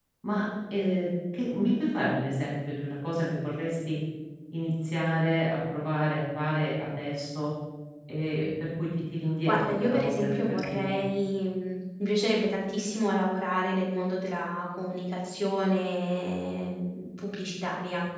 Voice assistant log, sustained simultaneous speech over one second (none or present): present